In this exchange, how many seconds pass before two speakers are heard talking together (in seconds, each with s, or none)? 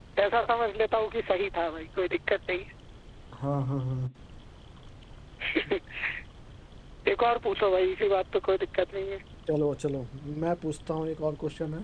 none